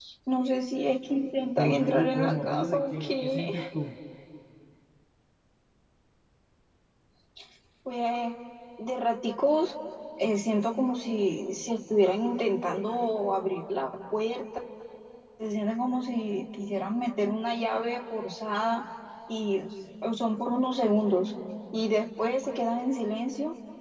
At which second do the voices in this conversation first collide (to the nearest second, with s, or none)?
2 s